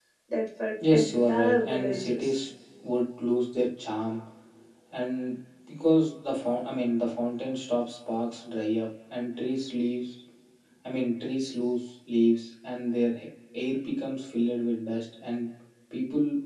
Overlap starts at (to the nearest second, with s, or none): 1 s